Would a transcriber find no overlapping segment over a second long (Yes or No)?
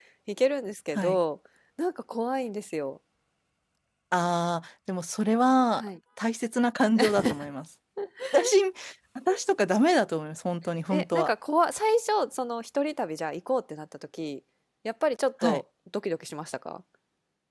Yes